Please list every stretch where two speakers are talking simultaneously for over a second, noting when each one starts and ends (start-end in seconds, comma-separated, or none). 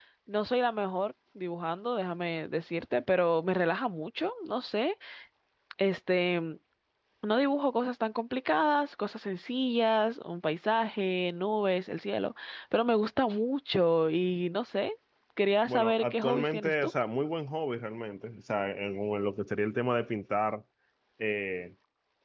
15.7-16.9